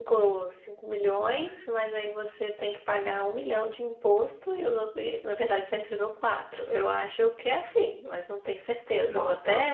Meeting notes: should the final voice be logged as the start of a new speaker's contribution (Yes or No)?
Yes